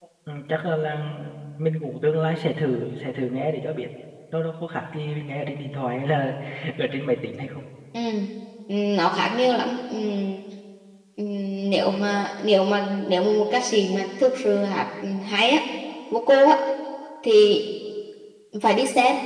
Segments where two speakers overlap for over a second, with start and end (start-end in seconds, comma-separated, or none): none